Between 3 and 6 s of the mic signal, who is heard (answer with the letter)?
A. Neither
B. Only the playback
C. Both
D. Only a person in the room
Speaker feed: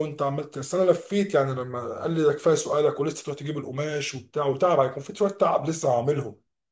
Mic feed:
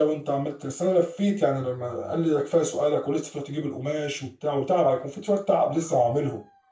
B